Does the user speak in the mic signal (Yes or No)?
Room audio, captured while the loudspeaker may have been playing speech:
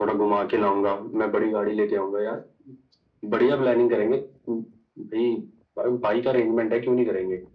No